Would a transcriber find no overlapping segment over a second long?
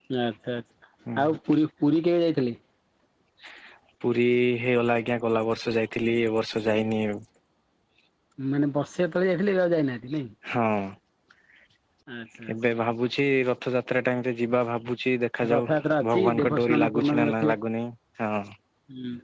No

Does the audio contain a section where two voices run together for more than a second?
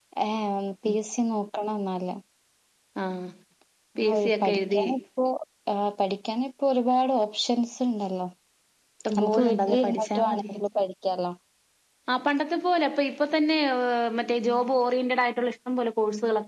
Yes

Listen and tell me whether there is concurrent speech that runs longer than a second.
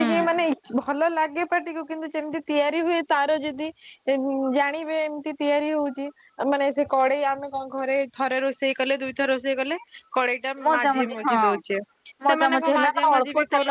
Yes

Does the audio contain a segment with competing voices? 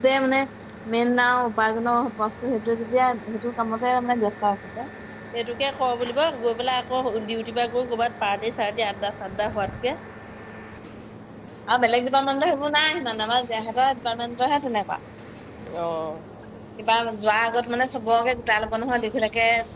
No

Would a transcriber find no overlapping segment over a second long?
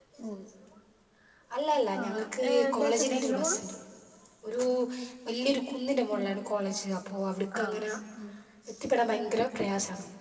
No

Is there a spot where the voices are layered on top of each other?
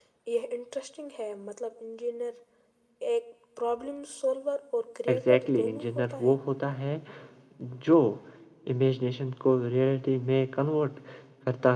Yes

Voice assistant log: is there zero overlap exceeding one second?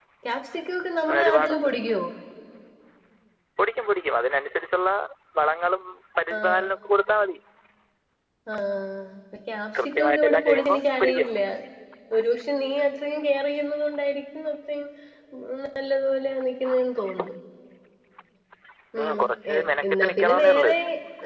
No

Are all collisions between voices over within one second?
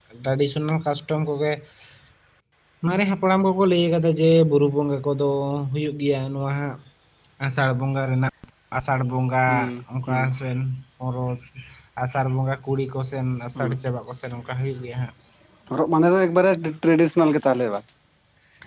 Yes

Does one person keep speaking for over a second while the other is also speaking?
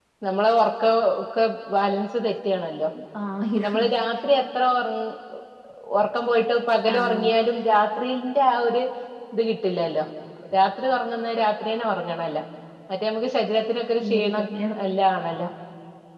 No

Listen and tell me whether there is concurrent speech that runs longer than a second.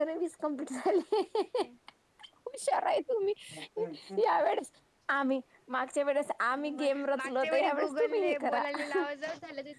Yes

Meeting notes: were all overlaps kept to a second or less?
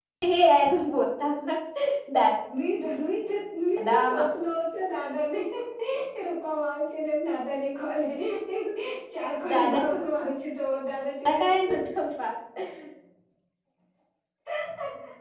Yes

